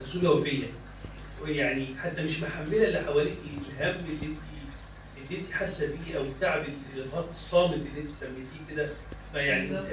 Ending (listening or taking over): listening